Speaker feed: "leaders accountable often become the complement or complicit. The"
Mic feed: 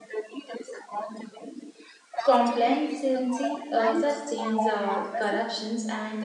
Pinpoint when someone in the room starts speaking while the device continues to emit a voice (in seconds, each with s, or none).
2.2 s